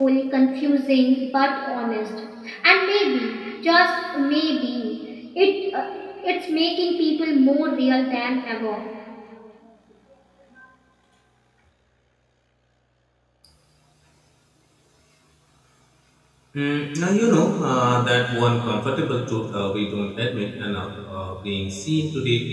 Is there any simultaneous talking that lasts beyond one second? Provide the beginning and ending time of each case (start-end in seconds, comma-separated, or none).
none